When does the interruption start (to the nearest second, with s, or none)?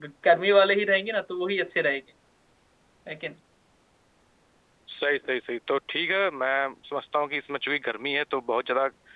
none